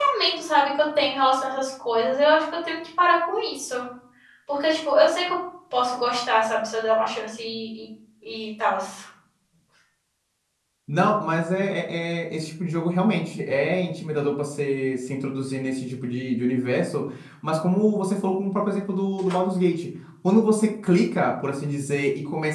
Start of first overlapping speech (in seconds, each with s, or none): none